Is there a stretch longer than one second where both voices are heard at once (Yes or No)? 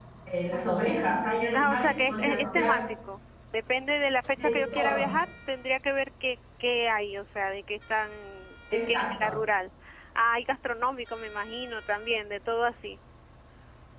Yes